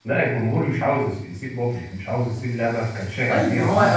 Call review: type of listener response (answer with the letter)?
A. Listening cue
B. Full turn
B